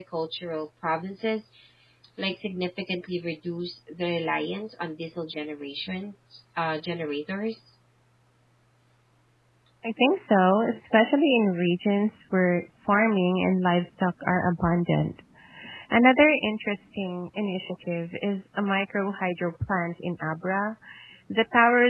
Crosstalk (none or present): none